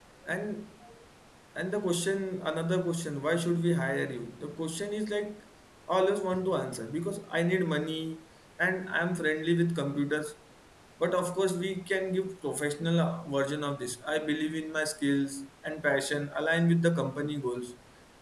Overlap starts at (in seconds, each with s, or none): none